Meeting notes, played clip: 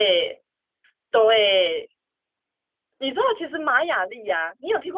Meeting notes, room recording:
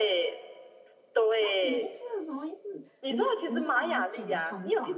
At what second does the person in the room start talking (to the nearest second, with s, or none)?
1 s